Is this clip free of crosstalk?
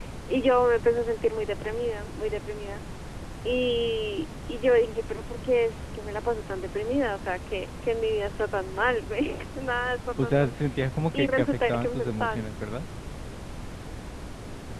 No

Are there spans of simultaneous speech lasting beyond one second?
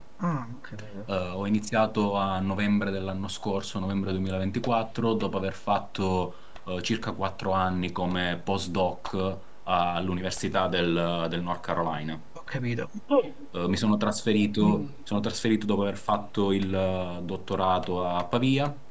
No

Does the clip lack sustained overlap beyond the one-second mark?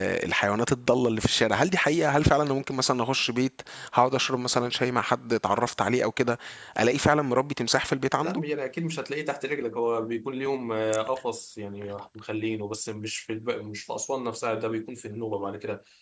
Yes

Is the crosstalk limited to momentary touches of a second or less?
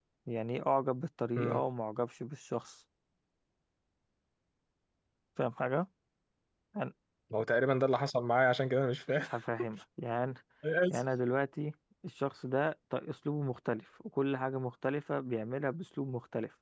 Yes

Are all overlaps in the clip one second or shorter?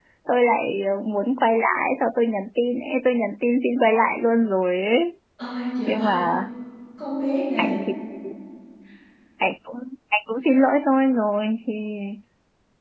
Yes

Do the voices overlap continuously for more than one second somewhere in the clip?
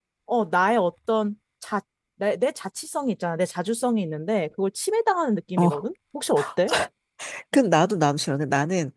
No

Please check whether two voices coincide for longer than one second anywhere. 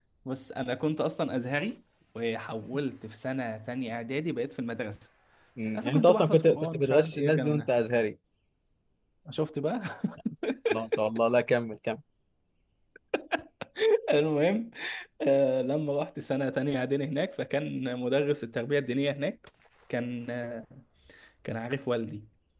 Yes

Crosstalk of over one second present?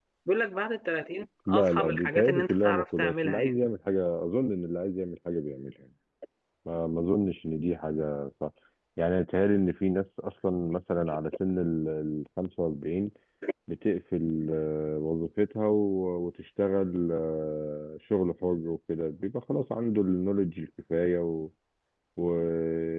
Yes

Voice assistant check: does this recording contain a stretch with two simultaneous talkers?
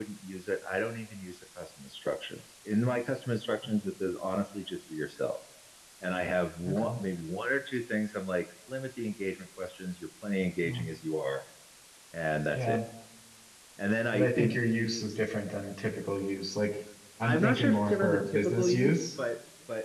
Yes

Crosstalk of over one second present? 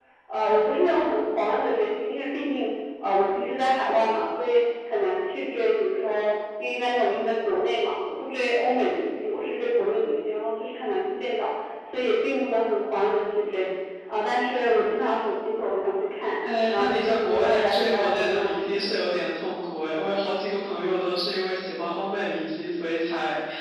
Yes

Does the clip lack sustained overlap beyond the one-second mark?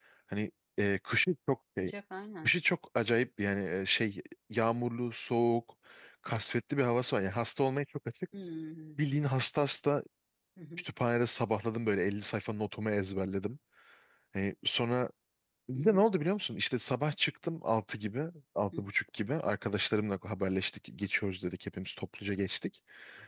Yes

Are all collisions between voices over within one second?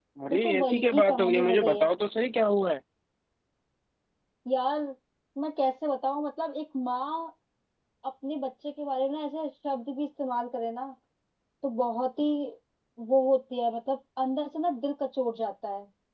No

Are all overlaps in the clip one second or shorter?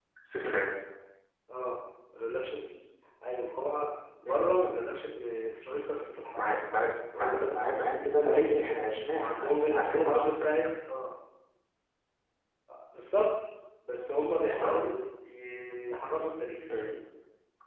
No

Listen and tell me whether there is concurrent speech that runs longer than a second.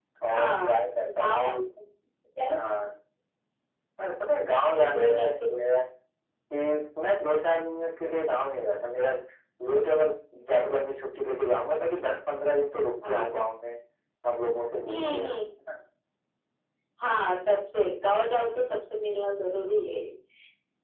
Yes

